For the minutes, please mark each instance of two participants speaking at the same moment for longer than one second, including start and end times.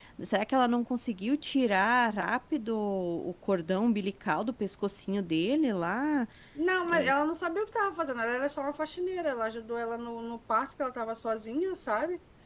none

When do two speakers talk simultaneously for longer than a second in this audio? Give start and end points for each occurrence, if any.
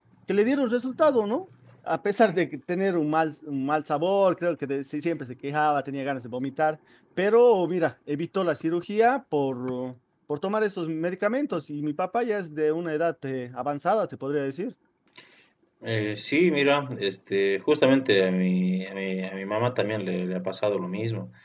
none

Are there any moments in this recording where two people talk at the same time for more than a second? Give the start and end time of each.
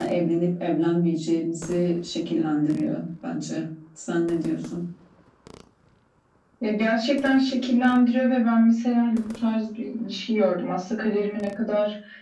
none

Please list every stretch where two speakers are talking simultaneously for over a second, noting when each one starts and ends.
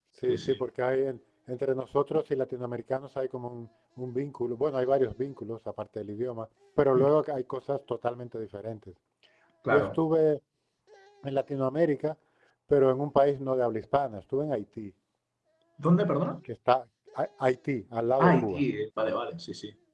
none

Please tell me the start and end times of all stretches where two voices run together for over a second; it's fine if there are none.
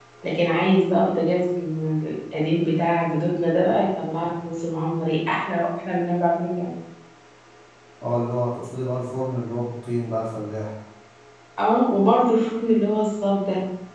none

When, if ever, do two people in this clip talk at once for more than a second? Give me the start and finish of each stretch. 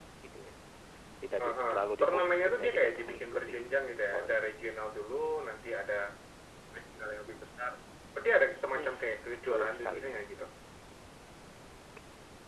1.4-3.5, 8.8-10.1

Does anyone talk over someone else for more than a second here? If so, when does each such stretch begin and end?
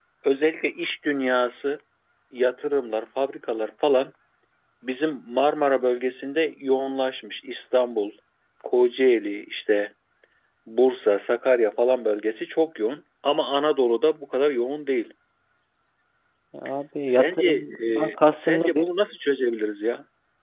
17.1-18.9

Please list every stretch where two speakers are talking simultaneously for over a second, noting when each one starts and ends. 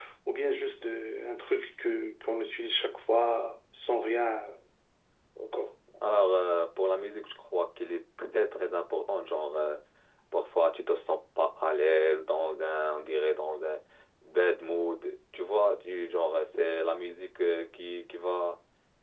none

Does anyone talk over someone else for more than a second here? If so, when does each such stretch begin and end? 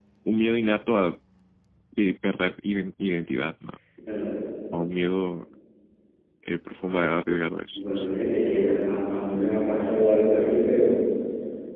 none

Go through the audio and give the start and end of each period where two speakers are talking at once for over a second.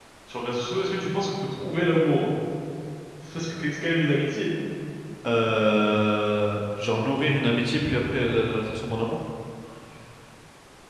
none

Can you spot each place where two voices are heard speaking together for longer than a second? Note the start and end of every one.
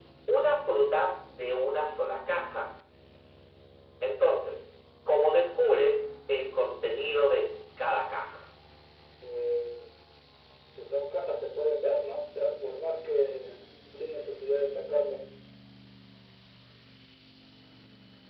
none

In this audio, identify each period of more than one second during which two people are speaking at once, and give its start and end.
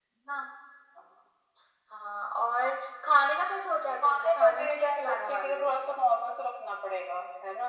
4.0-5.7

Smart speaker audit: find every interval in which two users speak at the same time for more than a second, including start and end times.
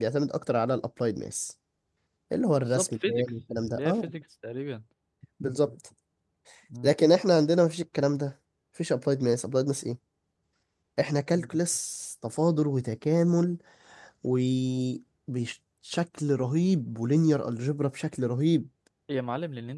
2.6-4.1

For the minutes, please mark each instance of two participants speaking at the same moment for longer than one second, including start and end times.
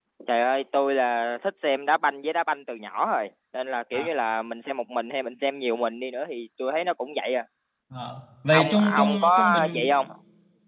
8.5-9.9

